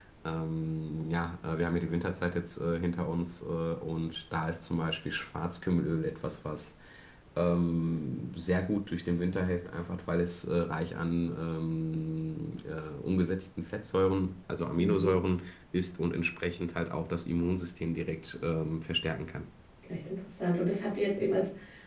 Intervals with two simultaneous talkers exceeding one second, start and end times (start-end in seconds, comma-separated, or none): none